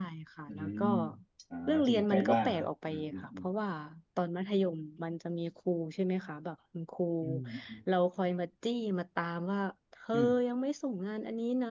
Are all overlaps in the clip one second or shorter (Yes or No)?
No